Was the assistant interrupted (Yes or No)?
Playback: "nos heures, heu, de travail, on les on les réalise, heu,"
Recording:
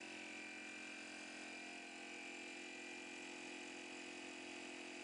No